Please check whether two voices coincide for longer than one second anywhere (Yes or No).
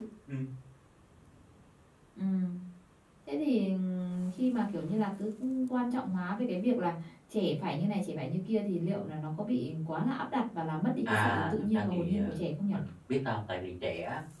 Yes